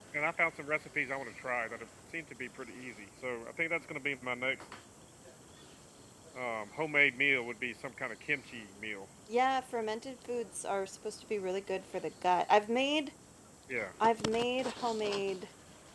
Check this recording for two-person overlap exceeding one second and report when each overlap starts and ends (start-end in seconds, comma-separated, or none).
none